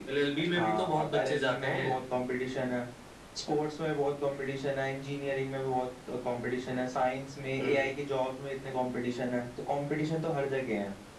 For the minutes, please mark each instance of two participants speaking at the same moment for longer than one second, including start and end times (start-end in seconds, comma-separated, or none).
0.6-1.9